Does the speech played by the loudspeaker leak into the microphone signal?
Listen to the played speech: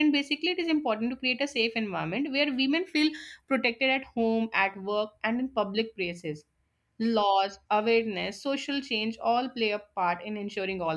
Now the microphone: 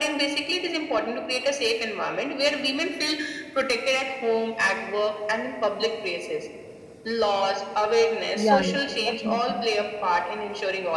Yes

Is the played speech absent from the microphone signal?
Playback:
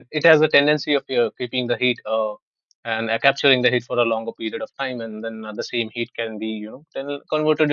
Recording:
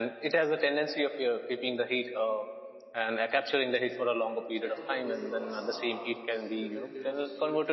No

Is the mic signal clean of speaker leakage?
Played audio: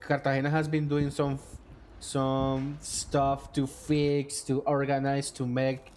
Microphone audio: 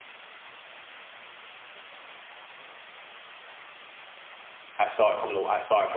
Yes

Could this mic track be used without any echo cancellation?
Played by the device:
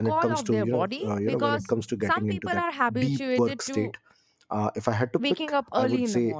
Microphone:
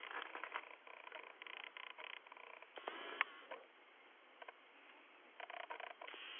Yes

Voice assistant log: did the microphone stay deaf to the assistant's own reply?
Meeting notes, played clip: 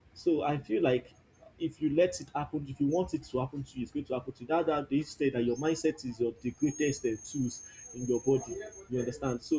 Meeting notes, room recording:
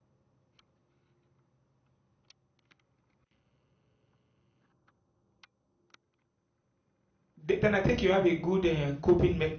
Yes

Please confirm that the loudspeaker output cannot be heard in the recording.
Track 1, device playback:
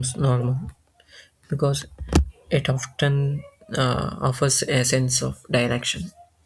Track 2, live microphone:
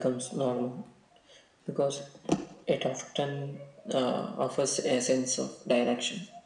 No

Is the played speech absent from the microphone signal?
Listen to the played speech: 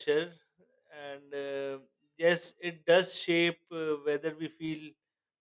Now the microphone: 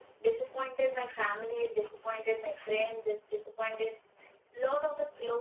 Yes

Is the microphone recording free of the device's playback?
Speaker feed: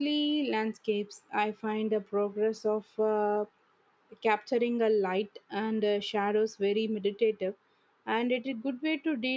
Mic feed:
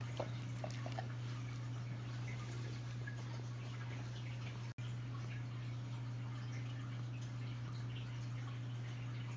Yes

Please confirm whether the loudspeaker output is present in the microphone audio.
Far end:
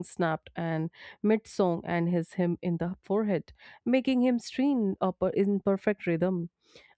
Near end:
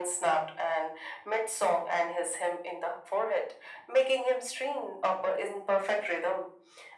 Yes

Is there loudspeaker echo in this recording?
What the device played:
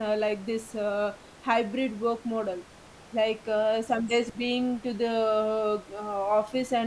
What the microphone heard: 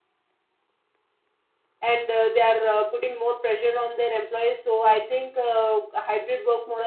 No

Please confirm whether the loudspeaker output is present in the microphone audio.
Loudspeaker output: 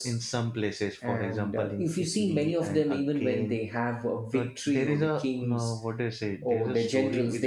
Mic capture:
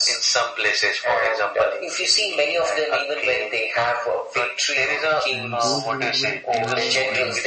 Yes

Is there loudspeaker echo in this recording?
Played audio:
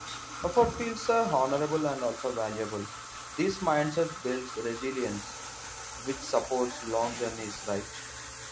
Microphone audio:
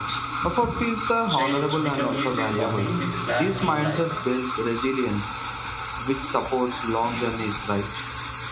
Yes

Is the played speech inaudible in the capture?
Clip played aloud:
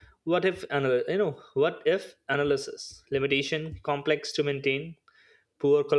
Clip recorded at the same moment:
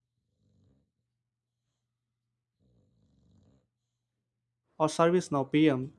Yes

